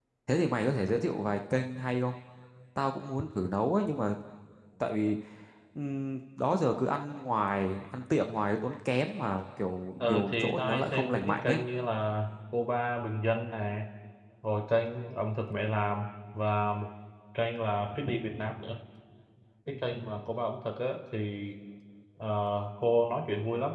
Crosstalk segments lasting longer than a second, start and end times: 10.0-11.6

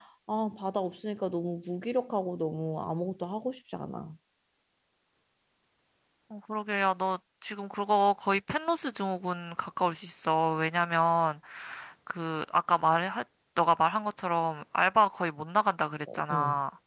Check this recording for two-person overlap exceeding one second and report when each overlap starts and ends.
none

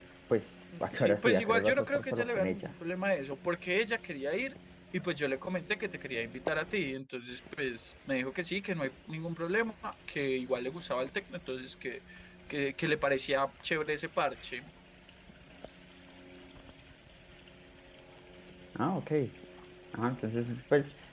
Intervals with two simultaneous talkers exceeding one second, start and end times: 0.8-2.7

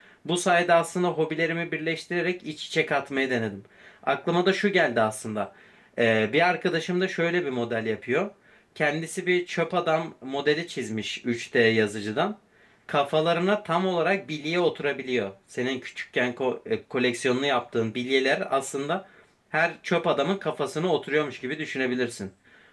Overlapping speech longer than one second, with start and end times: none

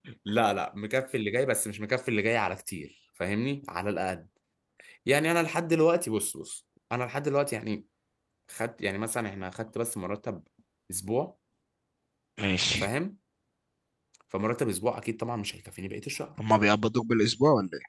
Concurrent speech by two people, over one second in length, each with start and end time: none

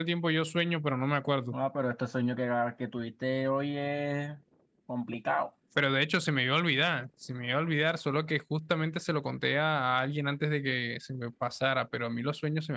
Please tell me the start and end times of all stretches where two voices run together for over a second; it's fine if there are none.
none

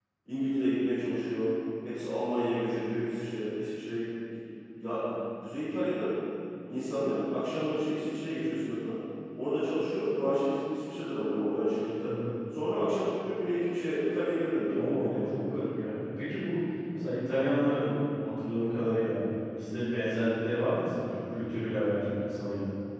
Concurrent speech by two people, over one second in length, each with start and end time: none

